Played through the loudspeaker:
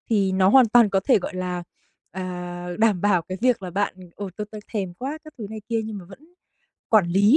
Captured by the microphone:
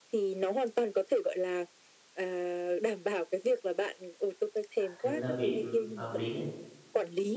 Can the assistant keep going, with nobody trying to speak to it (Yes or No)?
No